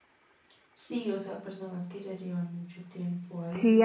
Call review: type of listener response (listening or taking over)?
taking over